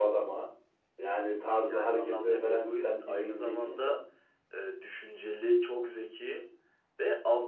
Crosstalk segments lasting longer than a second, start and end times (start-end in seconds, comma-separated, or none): 1.6-4.0